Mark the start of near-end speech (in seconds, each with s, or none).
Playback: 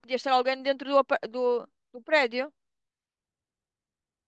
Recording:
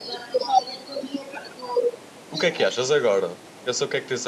2.3 s